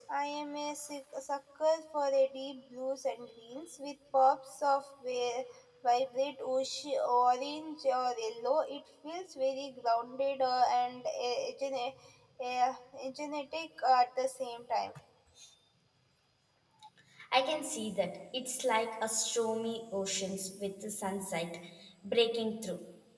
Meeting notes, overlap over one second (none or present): none